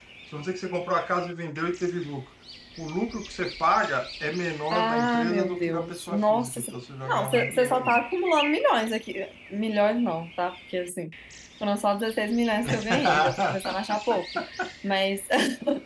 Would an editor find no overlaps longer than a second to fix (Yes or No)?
No